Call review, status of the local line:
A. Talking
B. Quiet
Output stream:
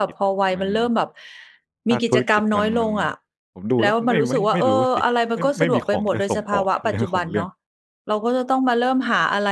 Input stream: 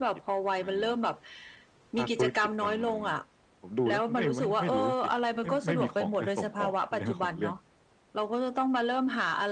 B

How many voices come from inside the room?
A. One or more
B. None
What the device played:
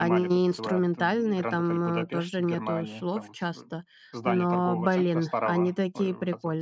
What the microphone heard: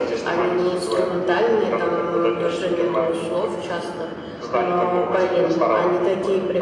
B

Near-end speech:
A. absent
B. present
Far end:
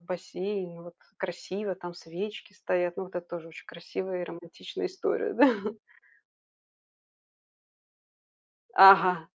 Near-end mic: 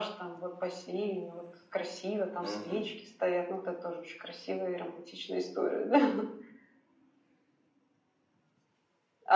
B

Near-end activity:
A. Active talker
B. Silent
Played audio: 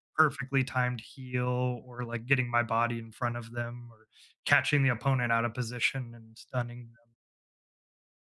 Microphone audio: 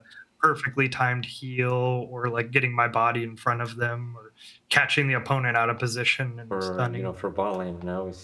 A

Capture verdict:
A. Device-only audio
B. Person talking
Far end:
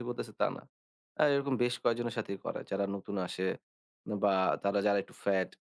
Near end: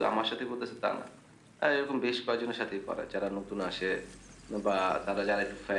A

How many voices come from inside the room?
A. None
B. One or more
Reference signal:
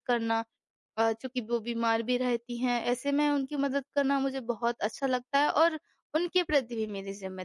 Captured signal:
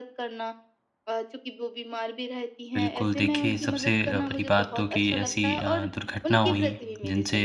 B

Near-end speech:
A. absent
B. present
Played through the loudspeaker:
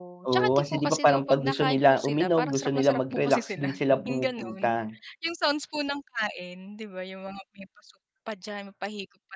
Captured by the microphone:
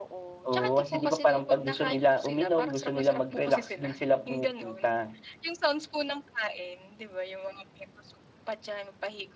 A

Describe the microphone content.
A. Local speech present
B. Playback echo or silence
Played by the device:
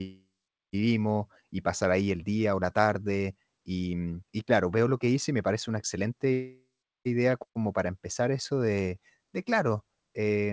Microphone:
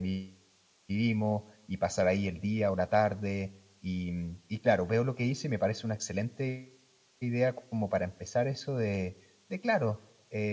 B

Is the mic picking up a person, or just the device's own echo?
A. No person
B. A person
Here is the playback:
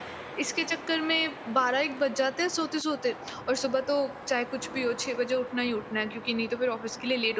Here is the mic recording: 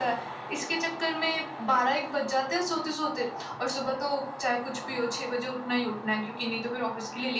A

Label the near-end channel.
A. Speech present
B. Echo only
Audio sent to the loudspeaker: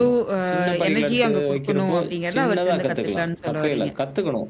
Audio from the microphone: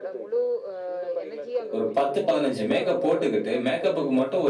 A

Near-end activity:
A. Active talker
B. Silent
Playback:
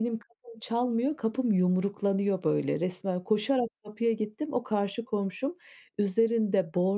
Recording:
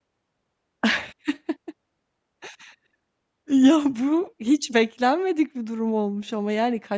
A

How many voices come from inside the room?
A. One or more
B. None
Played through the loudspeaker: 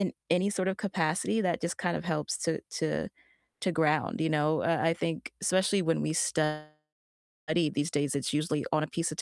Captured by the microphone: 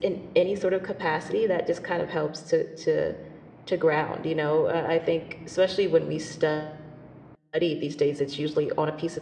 B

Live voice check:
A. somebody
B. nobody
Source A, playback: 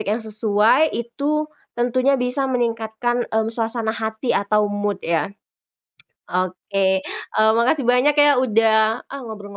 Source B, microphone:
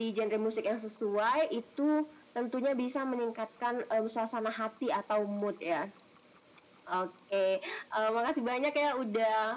B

